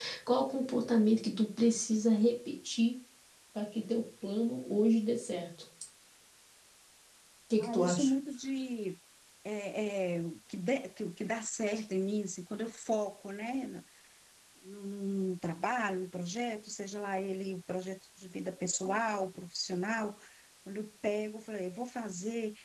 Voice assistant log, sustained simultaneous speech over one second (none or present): none